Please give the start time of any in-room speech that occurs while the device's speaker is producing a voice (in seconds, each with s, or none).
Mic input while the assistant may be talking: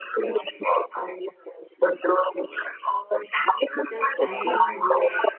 3.9 s